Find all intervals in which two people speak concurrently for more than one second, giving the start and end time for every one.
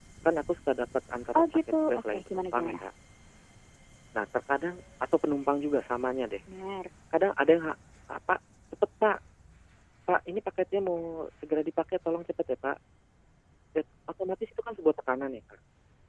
1.4-2.8

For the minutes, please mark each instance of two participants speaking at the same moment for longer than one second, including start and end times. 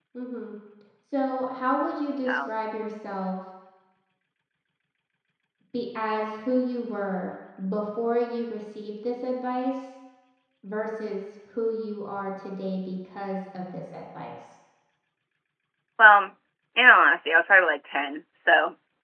none

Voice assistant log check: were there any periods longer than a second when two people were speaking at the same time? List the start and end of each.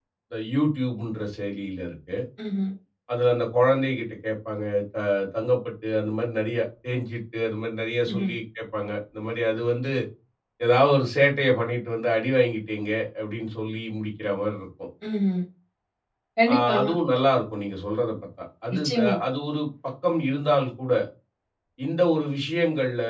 none

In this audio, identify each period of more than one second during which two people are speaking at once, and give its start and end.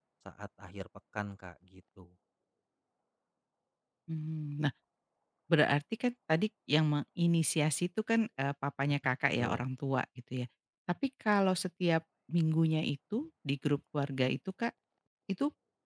none

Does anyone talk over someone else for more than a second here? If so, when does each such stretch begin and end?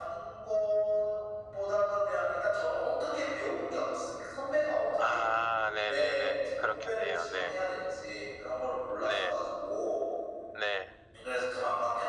5.9-7.5

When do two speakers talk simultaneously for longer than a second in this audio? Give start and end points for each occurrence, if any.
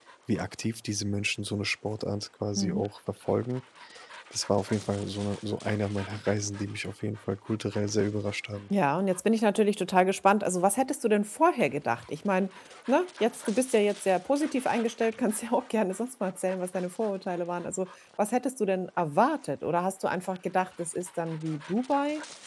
none

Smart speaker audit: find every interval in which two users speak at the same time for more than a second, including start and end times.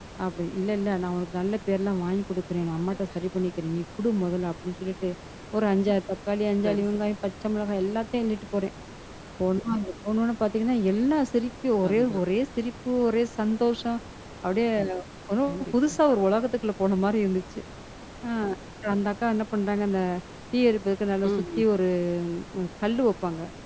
none

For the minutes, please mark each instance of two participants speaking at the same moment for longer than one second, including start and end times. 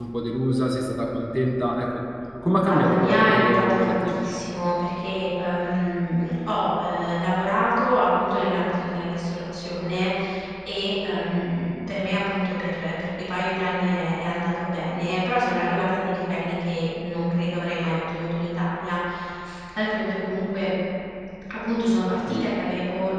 2.5-4.2

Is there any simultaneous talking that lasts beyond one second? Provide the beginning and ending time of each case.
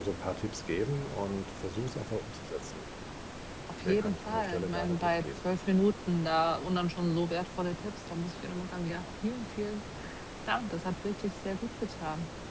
3.8-5.5

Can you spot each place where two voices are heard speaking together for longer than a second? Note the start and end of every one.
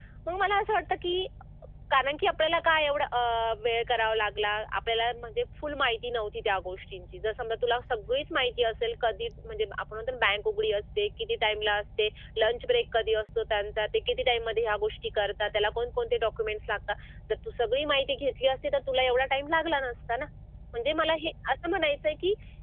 none

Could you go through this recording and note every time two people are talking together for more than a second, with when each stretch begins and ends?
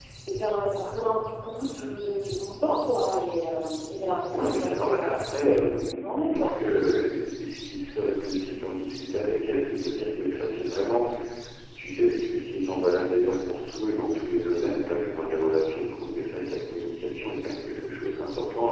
4.3-5.9

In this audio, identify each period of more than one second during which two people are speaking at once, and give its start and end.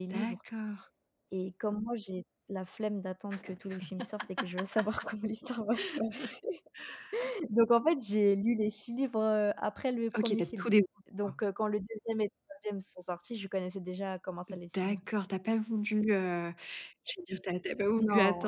none

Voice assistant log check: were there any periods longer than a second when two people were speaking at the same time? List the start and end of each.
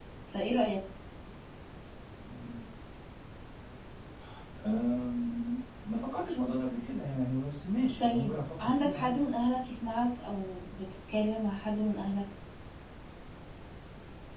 8.0-9.2

